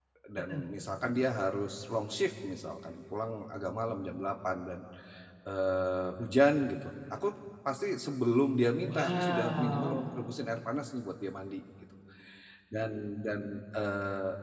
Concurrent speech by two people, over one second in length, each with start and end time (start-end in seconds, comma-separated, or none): 8.8-10.0